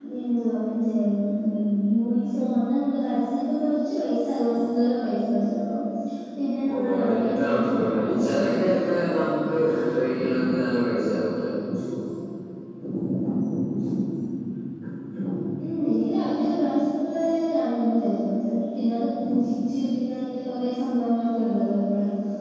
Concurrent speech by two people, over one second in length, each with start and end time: 6.7-9.3

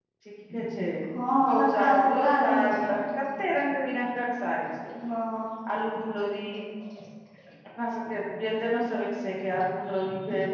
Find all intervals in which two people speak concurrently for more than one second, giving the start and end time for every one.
1.5-2.9

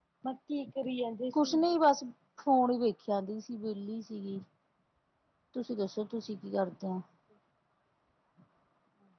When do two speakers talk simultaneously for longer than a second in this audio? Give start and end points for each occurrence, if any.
none

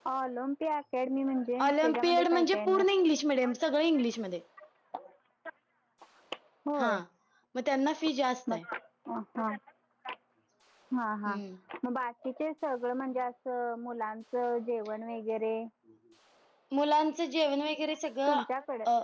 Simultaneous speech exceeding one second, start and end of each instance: 1.6-2.9

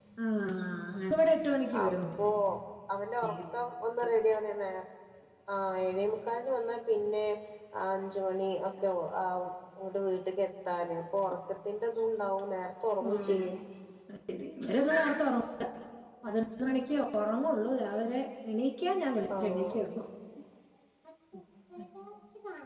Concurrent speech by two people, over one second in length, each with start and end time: none

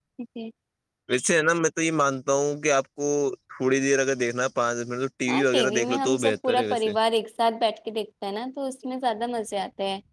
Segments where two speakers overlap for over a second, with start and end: 5.3-6.9

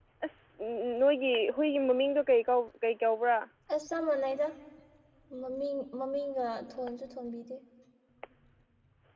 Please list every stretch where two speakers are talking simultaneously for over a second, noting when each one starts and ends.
none

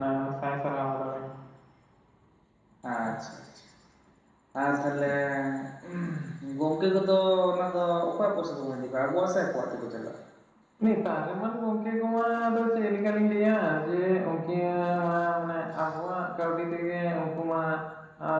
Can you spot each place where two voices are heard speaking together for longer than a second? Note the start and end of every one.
none

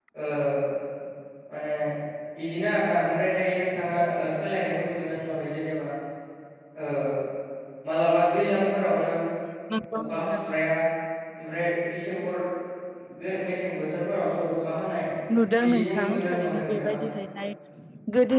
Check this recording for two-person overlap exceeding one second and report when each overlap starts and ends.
15.6-17.0

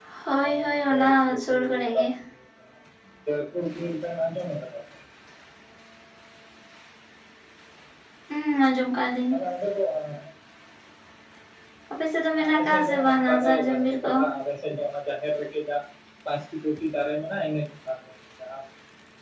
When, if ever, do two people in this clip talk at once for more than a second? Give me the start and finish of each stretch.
0.5-2.1, 12.4-14.1

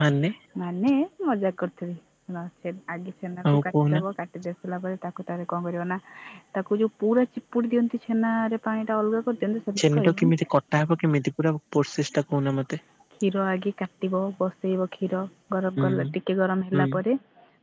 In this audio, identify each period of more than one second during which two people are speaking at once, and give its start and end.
none

